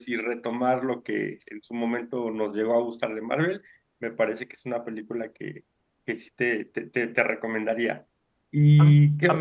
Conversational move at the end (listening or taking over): taking over